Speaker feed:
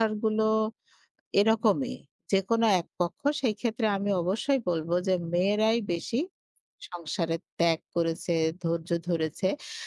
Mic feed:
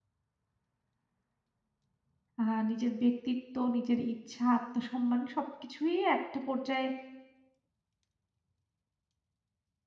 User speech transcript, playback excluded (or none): আ নিজের ব্যক্তিত্ব, নিজের ইচ্ছা, আত্মসম্মান সবকিছুই একটা পর্যায়ে